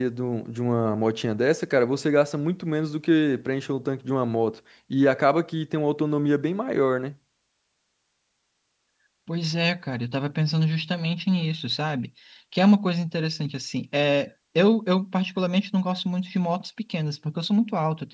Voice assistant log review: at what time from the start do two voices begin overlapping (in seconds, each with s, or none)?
none